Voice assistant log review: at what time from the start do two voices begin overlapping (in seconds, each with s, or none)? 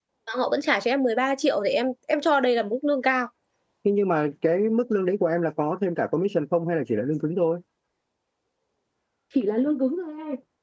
none